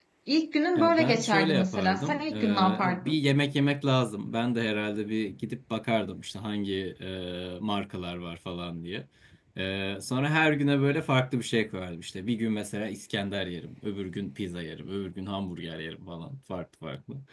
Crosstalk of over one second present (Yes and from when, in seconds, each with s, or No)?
Yes, from 0.8 s